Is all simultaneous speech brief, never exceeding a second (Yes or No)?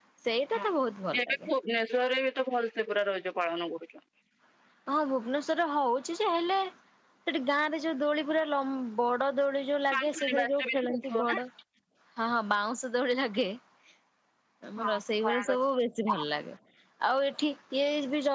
No